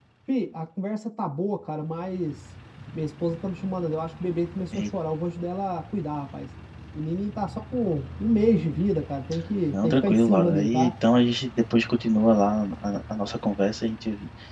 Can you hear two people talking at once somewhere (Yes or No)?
Yes